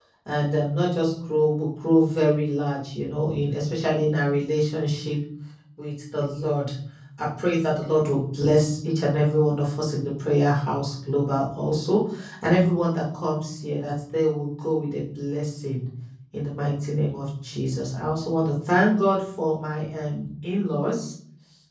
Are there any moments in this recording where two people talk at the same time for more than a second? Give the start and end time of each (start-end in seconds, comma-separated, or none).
none